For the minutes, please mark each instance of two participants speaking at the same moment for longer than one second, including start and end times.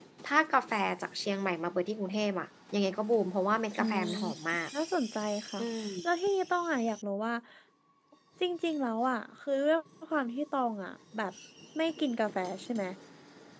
none

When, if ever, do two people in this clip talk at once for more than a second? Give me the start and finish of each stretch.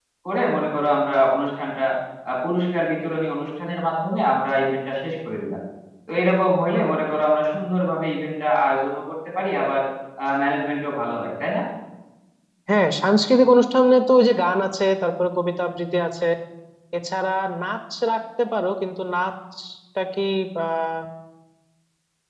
none

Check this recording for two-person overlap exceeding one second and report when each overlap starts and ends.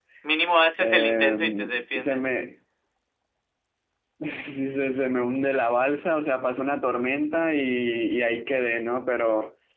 0.8-2.3

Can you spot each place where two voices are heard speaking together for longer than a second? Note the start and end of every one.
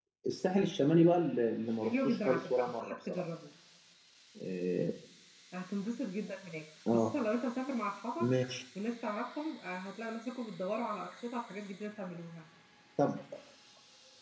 1.8-3.2

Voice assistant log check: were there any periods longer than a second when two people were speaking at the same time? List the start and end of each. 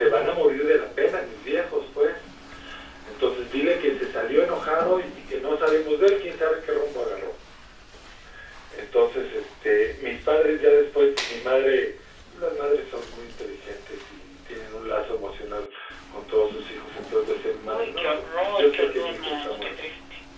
17.7-19.7

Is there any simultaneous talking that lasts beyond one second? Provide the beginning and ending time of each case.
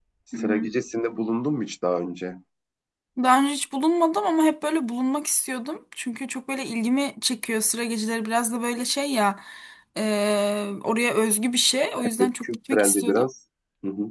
12.0-13.2

